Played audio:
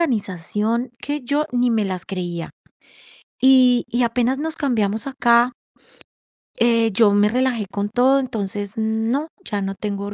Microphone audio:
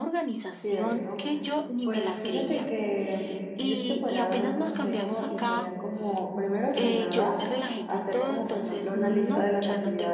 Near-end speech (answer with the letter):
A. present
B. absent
A